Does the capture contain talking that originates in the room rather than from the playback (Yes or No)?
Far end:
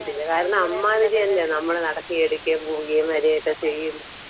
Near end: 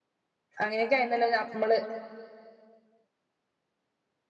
Yes